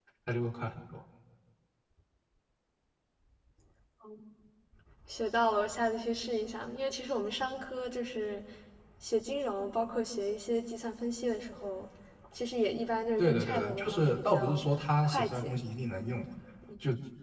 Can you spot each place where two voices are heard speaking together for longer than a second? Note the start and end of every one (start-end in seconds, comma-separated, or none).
13.2-14.6